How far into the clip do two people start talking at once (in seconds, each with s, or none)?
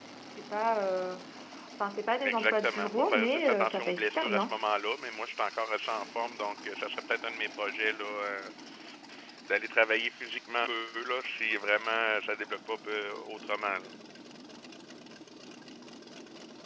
2.2 s